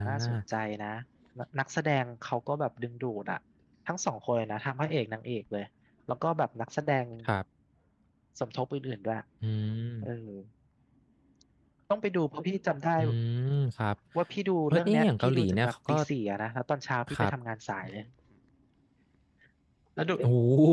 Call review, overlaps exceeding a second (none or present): present